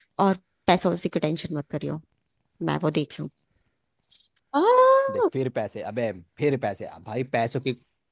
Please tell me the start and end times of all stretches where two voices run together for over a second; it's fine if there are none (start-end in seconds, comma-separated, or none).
none